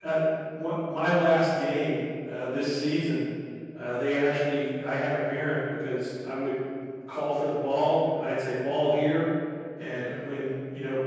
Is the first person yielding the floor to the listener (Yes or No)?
No